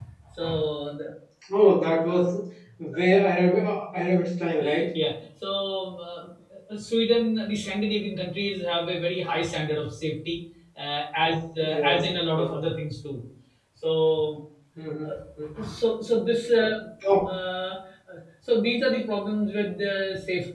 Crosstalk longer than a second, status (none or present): none